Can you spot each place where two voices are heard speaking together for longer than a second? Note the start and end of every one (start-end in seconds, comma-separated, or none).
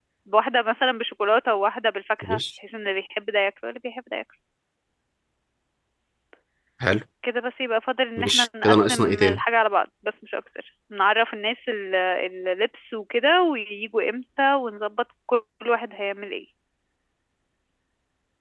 8.2-9.4